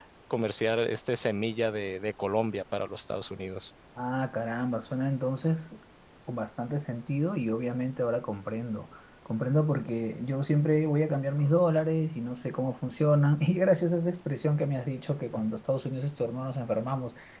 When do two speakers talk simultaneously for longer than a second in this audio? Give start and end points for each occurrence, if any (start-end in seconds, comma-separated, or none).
none